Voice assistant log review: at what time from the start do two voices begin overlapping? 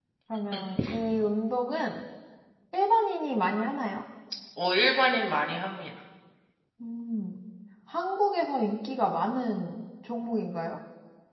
none

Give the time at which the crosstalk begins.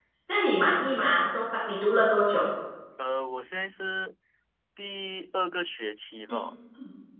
none

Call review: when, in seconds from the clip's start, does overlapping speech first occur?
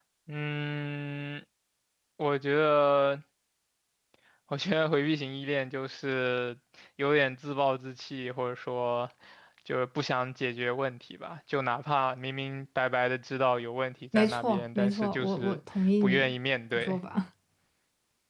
14.1 s

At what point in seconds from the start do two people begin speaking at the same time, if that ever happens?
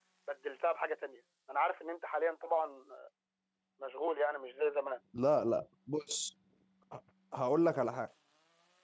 none

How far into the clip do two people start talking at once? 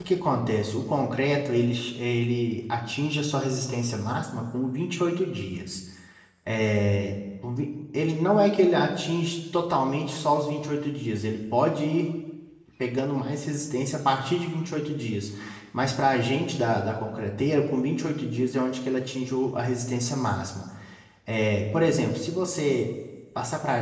none

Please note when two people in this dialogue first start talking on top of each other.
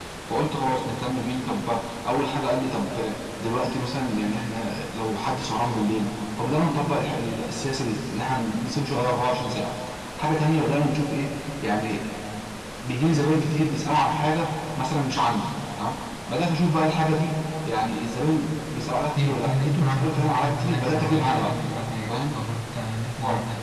19.0 s

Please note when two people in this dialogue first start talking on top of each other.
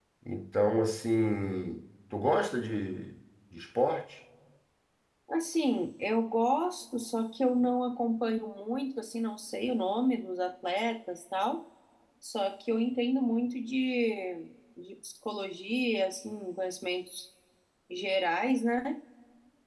none

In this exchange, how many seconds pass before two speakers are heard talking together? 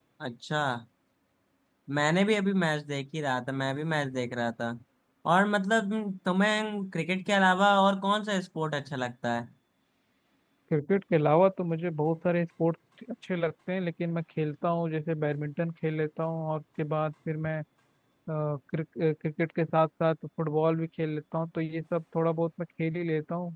none

